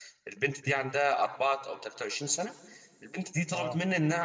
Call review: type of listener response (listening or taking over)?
listening